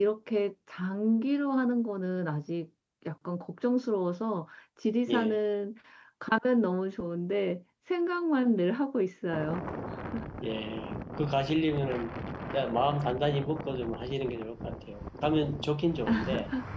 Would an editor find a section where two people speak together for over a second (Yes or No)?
No